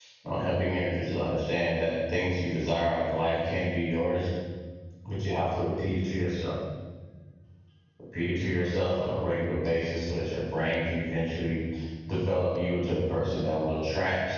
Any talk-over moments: No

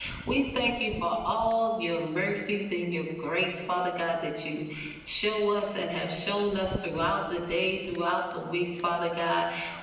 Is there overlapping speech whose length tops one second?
No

